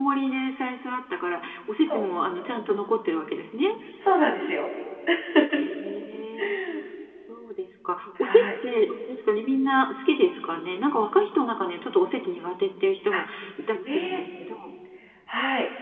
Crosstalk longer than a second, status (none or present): none